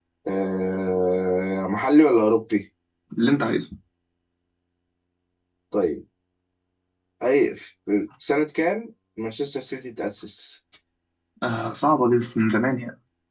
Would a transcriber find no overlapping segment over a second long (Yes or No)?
Yes